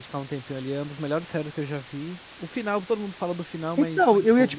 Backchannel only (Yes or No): No